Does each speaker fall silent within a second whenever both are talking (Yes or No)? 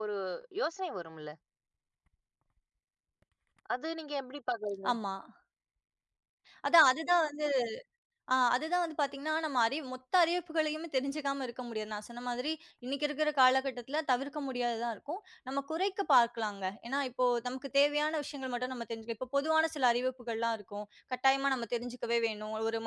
Yes